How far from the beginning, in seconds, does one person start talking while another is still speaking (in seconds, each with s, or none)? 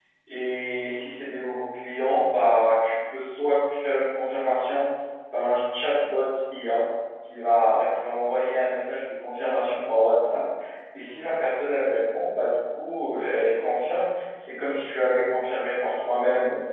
none